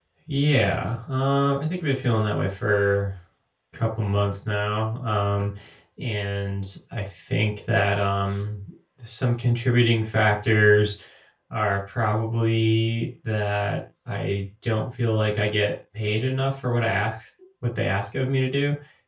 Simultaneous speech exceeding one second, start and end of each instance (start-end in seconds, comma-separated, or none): none